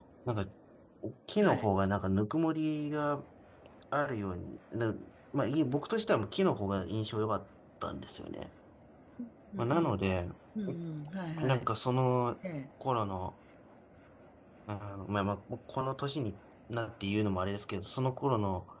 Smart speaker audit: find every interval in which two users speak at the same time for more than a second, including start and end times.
none

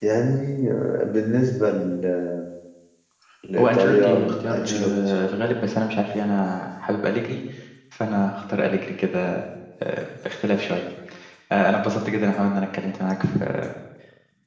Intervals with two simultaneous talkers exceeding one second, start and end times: 3.6-4.9

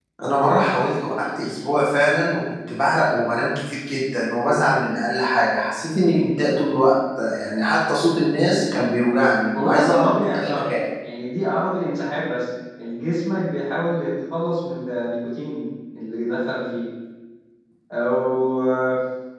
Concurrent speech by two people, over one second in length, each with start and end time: 9.5-10.8

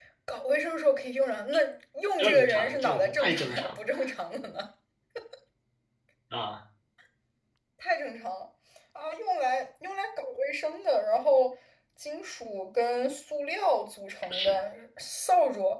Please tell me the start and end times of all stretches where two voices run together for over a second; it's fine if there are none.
2.2-3.8

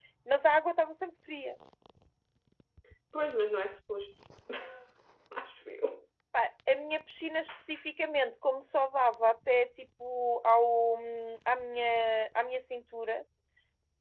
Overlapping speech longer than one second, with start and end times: none

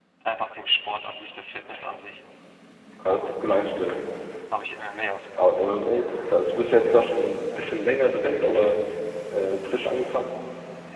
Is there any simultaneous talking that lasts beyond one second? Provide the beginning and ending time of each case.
none

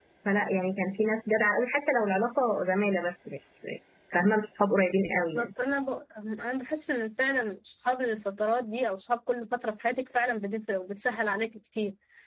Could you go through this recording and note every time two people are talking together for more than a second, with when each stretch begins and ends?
none

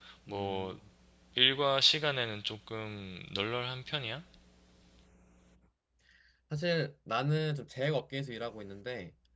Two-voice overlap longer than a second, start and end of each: none

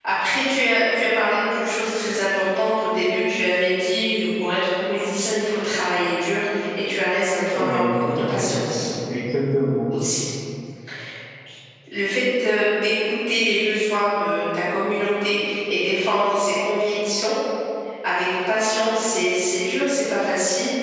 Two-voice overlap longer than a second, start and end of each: 7.5-8.9

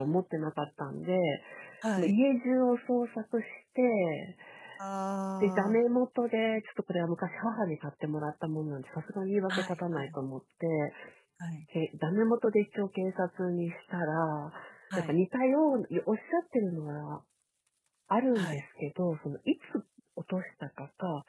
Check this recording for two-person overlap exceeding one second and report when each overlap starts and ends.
none

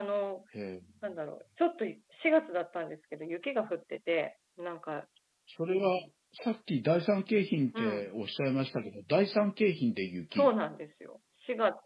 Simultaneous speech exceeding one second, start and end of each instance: none

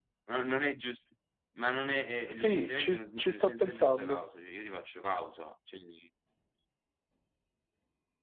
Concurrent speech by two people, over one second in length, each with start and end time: 2.3-4.2

